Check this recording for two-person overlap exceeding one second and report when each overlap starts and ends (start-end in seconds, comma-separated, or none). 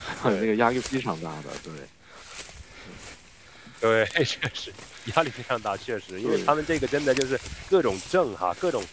none